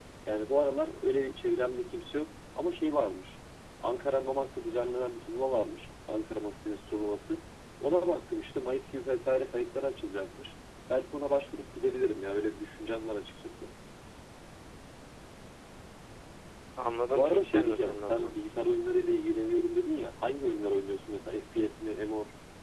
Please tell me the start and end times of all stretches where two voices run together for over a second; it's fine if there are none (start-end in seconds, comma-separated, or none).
17.1-18.3